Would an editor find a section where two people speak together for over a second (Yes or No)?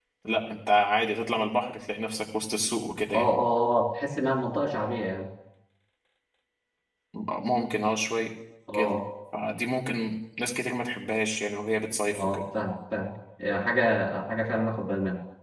No